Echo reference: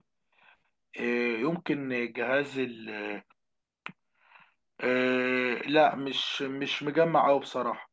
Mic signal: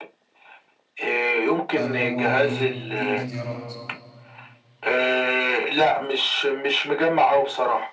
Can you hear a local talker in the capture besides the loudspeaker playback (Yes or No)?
Yes